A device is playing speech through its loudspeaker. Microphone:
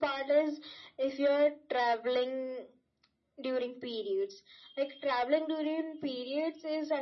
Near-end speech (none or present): none